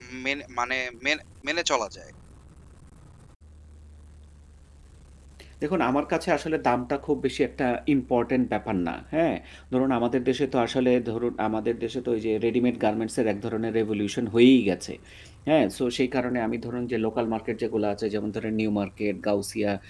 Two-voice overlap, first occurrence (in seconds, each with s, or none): none